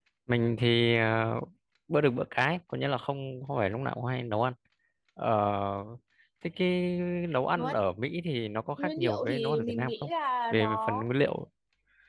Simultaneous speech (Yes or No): Yes